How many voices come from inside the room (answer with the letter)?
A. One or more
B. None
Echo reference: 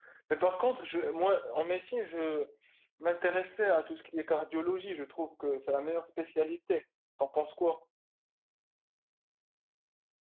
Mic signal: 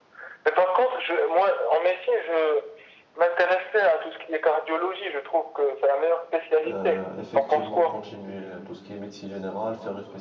A